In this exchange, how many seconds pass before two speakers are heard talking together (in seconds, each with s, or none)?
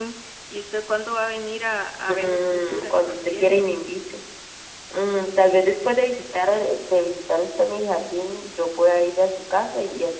2.1 s